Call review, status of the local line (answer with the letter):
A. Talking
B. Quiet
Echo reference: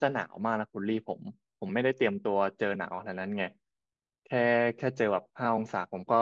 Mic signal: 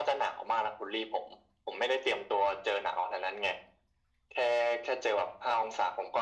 B